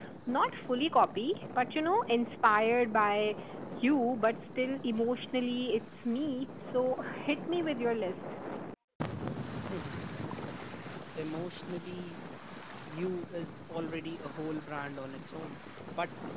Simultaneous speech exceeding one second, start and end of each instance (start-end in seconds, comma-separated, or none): none